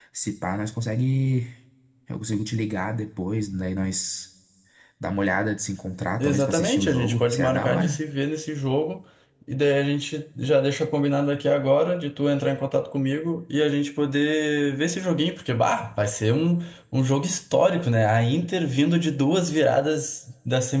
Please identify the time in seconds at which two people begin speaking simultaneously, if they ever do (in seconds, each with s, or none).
6.2 s